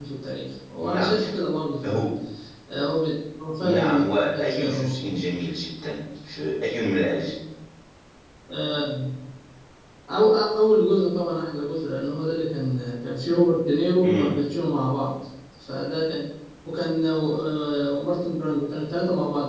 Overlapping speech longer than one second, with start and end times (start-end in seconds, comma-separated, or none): 3.6-5.0